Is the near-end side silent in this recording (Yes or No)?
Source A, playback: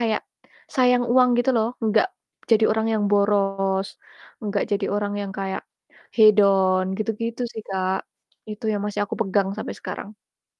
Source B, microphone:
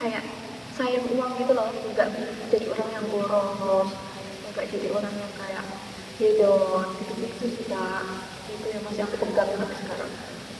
Yes